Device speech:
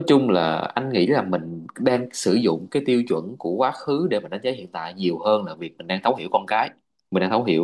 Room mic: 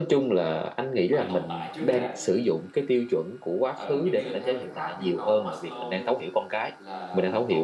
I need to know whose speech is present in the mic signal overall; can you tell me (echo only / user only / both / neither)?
both